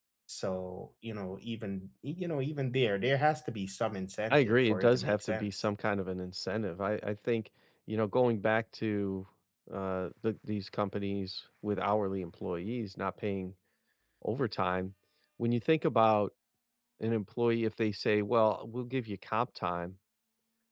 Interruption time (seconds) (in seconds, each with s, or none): 4.3 s